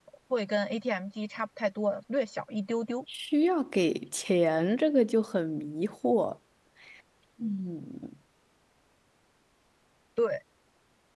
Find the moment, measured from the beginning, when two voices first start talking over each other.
none

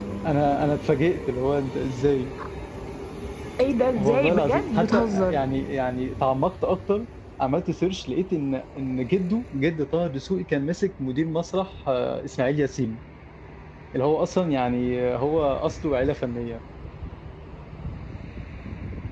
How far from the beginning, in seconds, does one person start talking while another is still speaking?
4.0 s

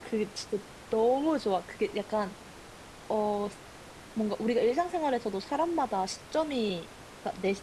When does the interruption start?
none

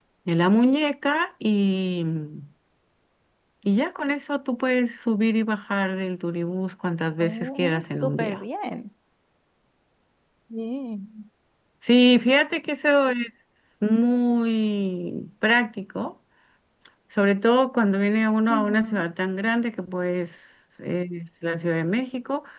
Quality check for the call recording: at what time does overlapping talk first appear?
7.2 s

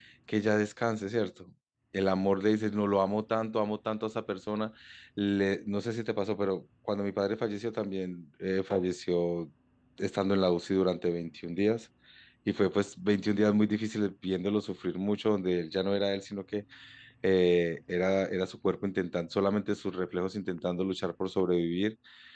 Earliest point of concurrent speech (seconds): none

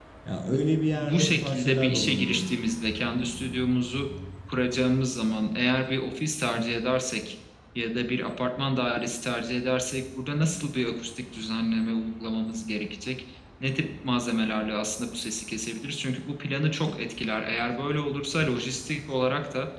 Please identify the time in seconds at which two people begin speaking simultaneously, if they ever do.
0.9 s

